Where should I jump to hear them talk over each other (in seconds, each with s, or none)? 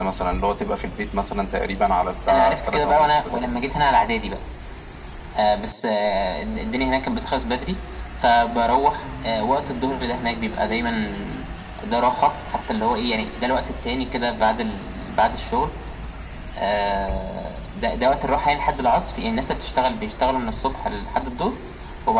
2.3 s